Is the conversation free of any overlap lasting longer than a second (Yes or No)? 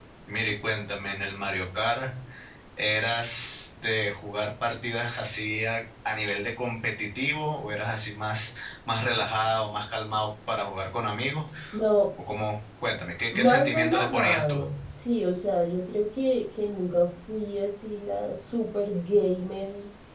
No